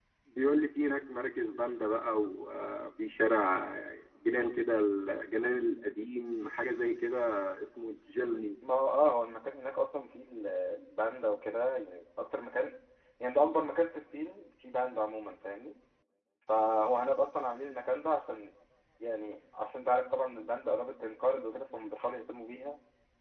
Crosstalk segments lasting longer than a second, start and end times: none

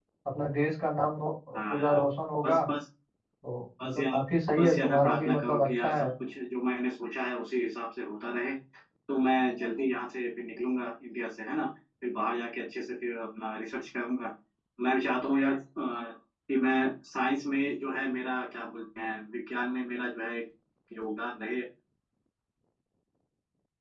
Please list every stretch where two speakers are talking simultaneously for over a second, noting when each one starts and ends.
4.6-6.1

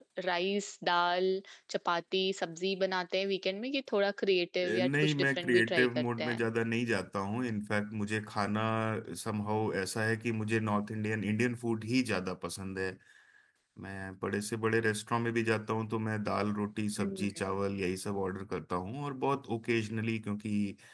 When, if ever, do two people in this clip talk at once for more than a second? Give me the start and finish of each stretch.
4.7-6.5

